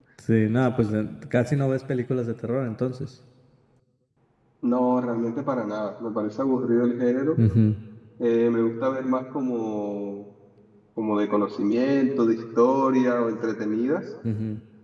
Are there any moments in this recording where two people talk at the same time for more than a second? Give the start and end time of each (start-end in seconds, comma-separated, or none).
none